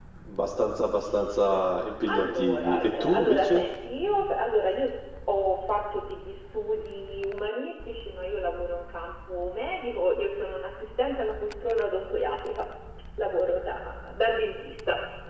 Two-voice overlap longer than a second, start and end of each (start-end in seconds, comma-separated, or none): 2.1-3.6